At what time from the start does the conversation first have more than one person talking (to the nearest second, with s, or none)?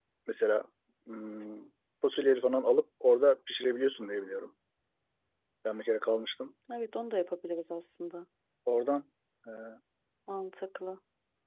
none